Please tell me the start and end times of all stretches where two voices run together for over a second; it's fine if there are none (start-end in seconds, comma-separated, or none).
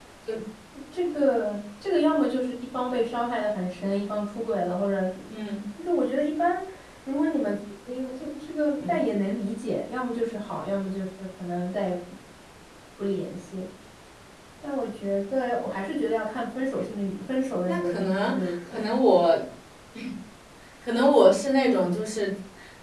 17.6-18.9